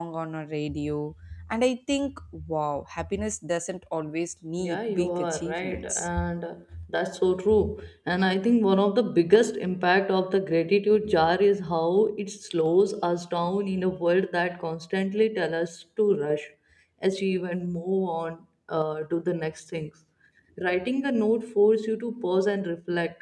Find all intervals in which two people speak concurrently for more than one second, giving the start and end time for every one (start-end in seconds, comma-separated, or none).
4.6-6.1